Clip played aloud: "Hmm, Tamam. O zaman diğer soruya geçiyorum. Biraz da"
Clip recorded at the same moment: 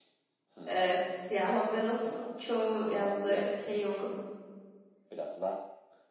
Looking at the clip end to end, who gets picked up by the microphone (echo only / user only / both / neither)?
both